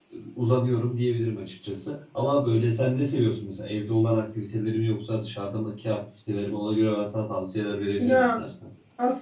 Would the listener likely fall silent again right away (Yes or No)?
No